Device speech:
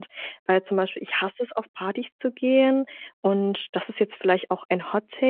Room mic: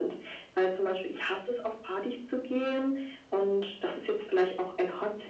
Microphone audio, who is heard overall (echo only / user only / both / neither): echo only